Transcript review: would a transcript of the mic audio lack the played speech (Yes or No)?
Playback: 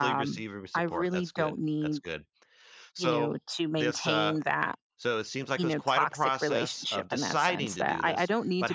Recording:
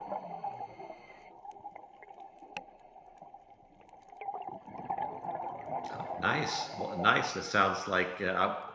Yes